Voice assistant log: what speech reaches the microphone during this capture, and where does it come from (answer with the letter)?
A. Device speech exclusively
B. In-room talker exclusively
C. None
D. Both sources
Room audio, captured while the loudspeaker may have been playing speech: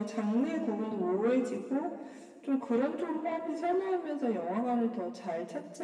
A